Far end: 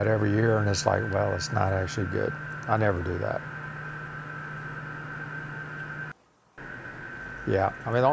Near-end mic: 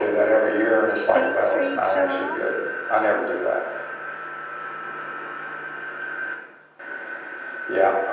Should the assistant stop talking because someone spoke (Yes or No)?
Yes